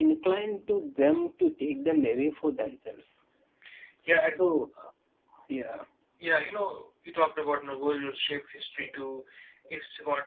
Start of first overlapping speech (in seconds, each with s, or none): none